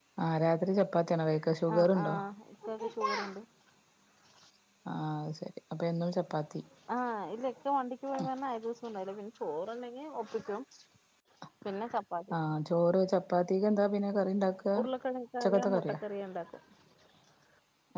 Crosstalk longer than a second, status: none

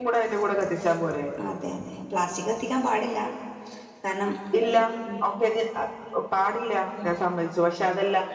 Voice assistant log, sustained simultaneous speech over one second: none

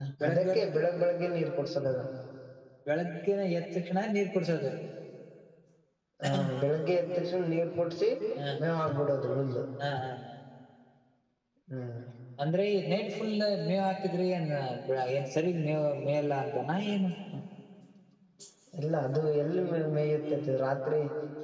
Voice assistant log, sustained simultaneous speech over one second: none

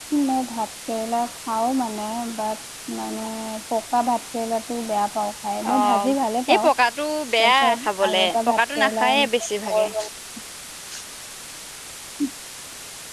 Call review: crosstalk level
present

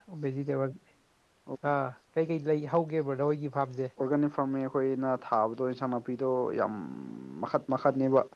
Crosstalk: none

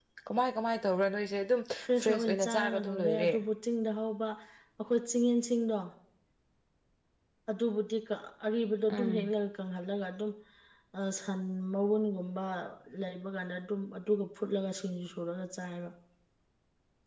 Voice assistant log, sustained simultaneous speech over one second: present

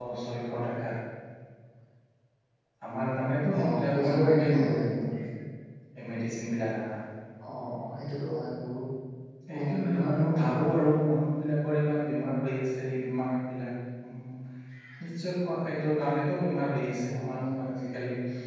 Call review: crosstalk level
present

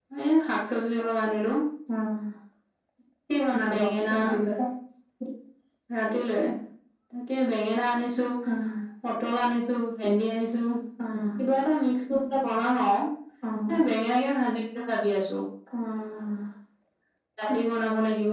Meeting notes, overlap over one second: none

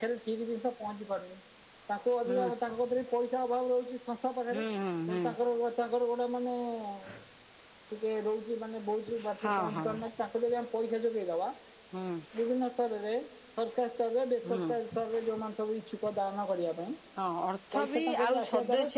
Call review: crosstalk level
present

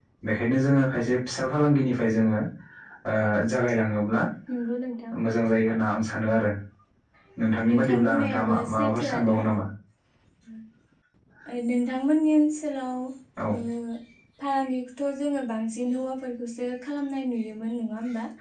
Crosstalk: present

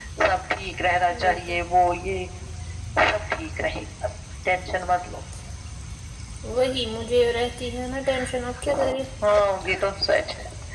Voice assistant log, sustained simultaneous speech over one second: none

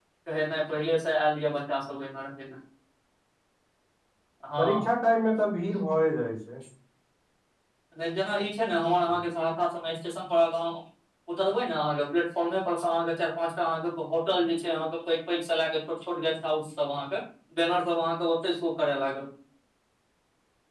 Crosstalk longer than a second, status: none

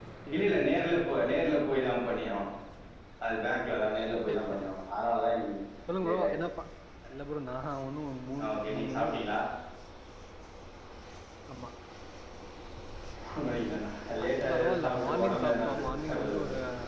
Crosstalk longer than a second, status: present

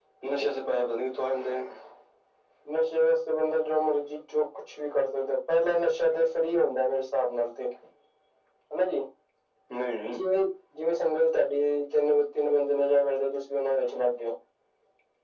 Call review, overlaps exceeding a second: none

